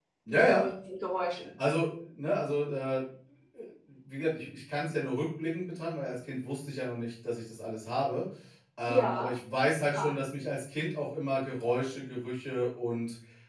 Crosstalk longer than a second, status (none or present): none